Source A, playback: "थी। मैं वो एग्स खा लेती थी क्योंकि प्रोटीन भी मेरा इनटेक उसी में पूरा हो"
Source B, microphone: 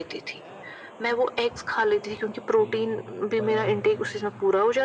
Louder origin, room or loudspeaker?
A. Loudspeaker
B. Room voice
A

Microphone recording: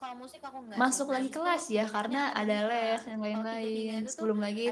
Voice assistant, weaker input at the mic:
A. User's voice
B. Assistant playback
B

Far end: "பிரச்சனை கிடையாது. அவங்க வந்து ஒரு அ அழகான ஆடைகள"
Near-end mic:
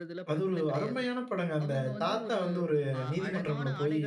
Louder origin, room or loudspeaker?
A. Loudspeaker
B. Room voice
B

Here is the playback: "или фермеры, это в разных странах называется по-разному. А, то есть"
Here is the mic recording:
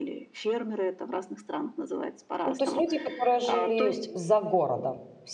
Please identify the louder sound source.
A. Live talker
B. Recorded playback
A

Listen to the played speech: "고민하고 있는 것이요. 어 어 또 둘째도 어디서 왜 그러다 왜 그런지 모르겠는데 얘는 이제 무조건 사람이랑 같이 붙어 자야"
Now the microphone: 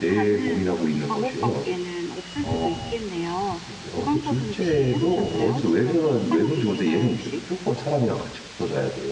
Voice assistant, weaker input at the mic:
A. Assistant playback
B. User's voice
B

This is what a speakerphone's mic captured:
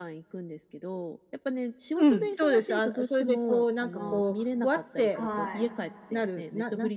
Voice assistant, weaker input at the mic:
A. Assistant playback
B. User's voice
B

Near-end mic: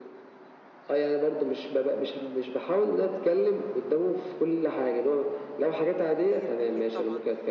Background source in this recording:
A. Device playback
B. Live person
B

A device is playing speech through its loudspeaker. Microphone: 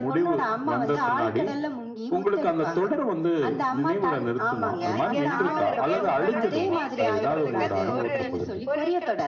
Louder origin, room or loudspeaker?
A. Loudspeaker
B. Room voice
A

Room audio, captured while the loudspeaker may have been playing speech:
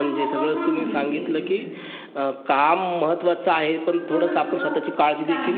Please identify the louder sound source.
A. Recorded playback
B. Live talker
B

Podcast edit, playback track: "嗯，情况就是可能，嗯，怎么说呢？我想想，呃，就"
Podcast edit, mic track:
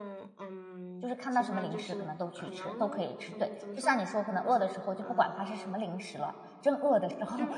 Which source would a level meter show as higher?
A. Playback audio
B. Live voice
B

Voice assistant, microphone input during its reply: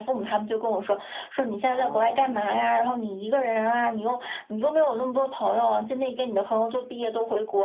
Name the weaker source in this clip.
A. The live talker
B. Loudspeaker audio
A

